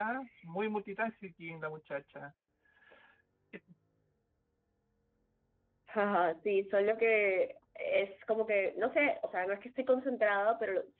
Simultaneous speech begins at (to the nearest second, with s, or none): none